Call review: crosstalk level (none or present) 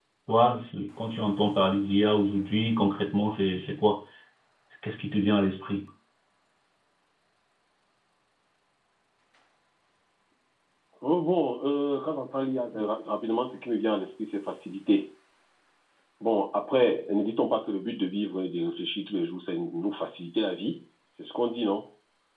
none